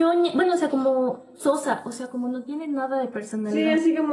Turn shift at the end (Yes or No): Yes